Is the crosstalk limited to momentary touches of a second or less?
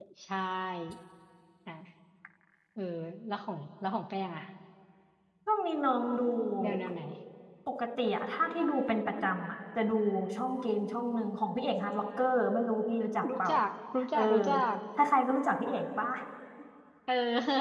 Yes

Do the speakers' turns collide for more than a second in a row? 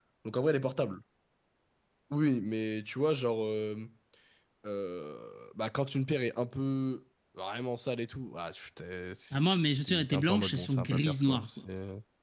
Yes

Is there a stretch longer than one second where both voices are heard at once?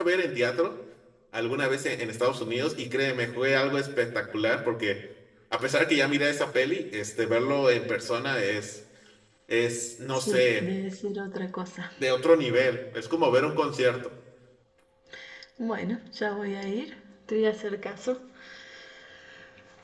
No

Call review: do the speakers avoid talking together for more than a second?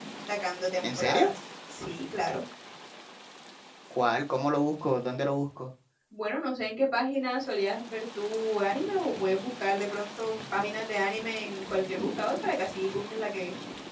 Yes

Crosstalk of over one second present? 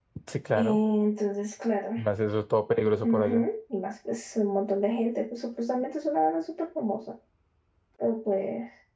No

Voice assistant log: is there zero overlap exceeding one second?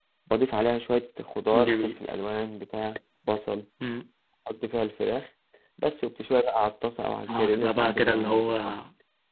No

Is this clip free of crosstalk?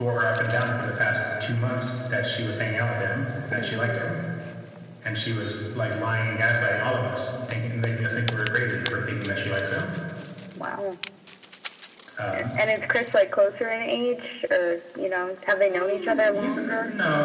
No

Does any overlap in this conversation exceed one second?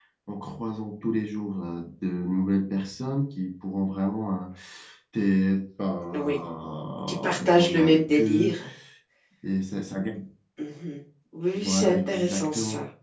Yes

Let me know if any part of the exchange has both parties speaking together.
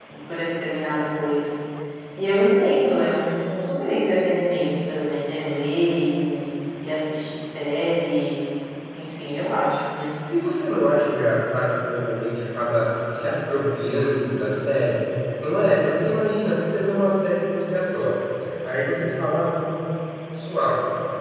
No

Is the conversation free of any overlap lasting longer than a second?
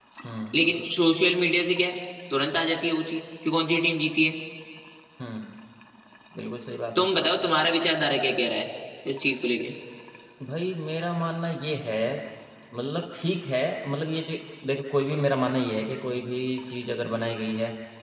Yes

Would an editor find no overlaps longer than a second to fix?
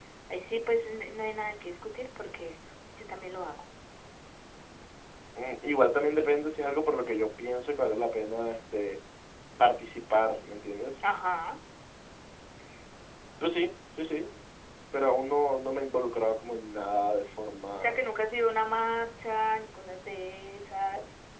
Yes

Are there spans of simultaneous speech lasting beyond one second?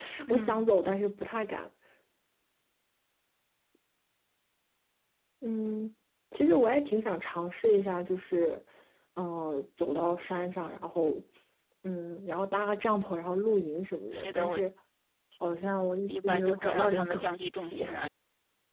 Yes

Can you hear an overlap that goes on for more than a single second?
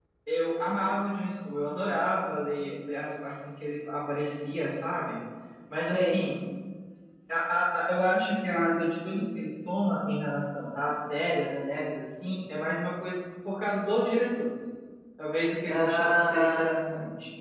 Yes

